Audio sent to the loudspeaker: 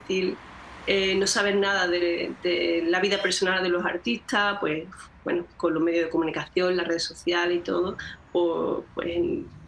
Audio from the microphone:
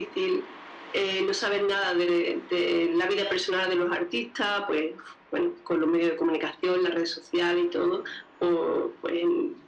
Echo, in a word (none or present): present